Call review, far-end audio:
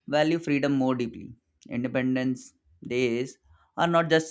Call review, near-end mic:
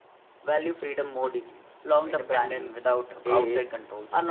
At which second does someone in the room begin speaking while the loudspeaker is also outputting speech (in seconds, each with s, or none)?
1.8 s